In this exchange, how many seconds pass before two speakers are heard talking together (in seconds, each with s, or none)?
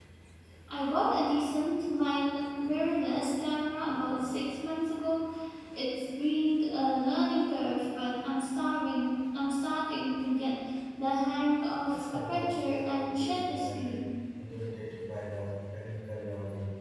11.9 s